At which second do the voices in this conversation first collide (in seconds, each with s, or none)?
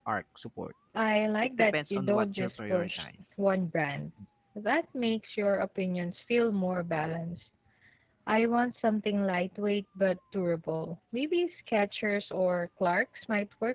1.6 s